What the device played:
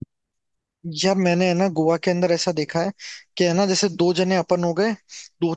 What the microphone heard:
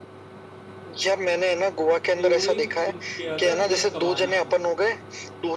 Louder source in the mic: echo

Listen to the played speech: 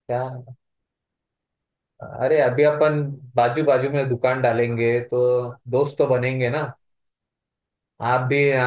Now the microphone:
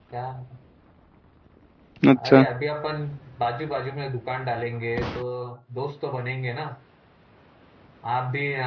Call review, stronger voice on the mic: user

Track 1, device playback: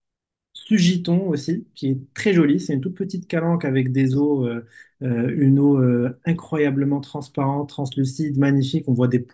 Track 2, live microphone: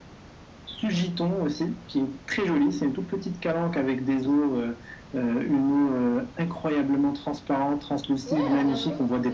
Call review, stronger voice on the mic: echo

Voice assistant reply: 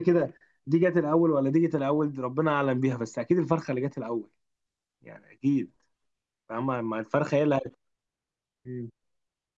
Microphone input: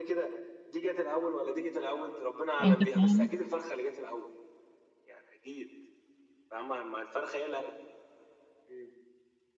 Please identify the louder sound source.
user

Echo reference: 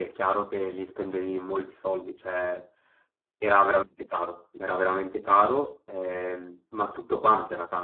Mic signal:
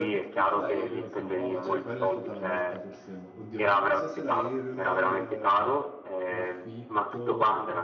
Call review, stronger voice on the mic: echo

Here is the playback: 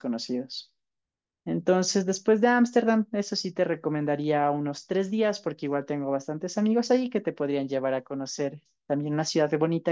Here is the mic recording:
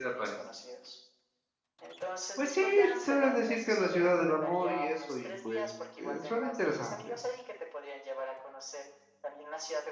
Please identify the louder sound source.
user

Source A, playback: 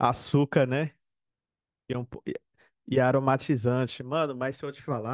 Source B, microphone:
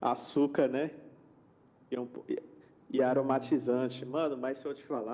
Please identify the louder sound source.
echo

